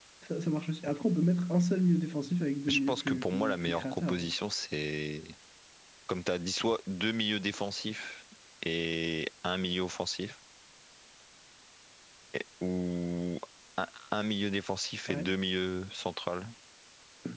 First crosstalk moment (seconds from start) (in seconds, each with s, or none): 2.7 s